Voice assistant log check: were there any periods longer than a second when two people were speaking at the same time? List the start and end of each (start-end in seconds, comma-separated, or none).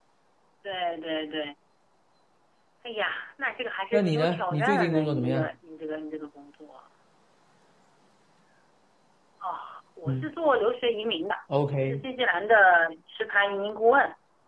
3.9-5.5